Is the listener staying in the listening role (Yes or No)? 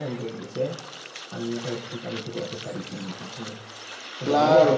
No